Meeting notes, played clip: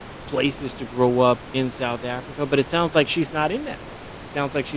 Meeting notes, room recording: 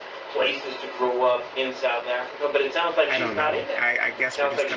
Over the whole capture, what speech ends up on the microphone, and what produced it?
both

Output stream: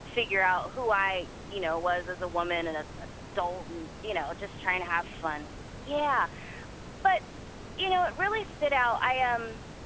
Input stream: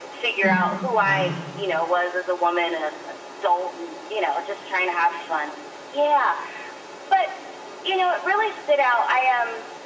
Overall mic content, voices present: both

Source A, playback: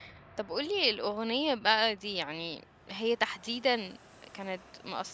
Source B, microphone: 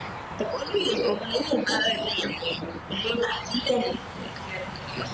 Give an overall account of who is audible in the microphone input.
echo only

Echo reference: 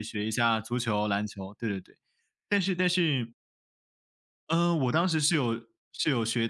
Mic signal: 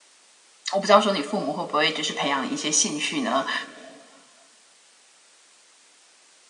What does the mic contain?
user only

